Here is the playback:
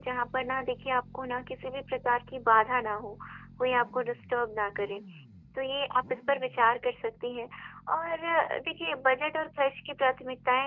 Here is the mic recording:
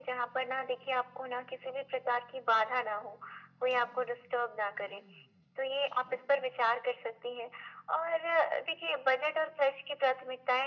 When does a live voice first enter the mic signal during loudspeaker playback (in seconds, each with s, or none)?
none